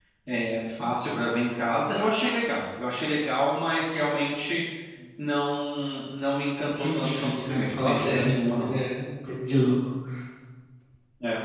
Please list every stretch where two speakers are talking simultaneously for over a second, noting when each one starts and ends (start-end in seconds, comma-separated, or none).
6.8-8.7